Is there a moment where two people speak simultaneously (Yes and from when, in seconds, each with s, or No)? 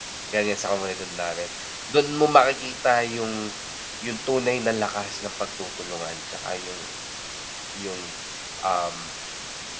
No